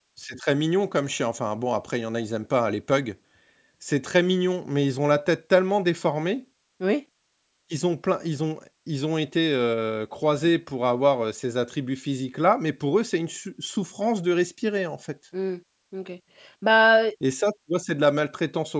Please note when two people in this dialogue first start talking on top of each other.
none

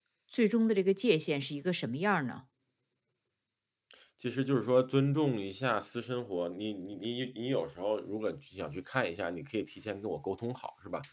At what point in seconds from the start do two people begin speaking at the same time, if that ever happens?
none

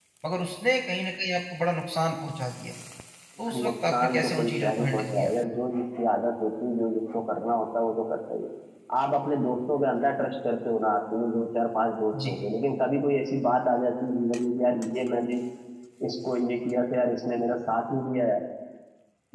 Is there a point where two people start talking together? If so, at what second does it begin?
3.5 s

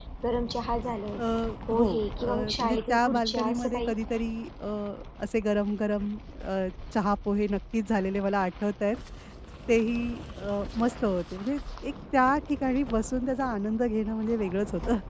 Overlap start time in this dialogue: 1.8 s

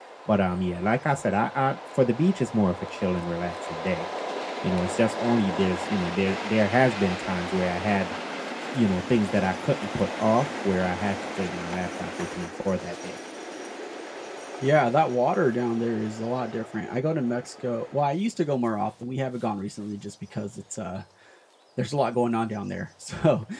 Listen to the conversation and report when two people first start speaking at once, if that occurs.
none

